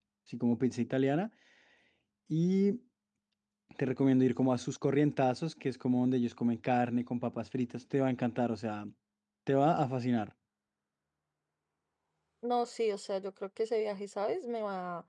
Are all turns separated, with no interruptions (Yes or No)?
Yes